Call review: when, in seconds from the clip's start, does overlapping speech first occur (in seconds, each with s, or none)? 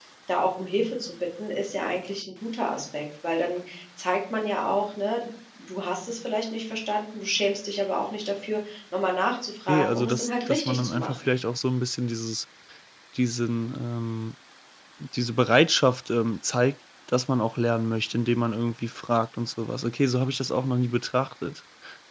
9.7 s